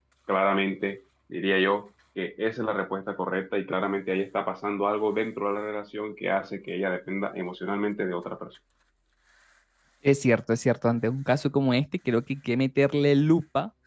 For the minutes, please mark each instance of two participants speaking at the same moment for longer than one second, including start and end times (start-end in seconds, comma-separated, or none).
none